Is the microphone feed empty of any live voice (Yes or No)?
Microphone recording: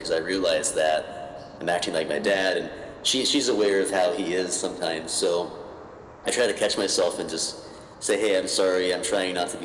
Yes